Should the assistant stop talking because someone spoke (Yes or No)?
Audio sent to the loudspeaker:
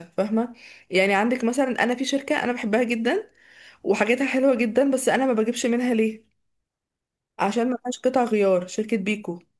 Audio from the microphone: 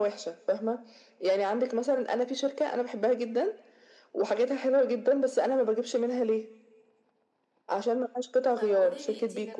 Yes